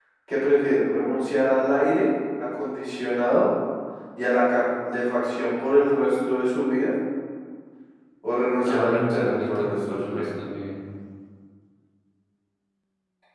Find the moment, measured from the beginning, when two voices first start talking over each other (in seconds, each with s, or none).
8.7 s